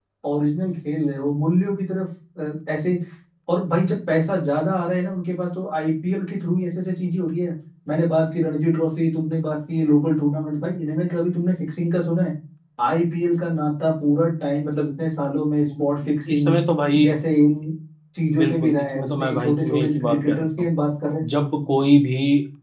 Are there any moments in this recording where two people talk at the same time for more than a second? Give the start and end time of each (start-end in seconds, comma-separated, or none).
18.4-20.7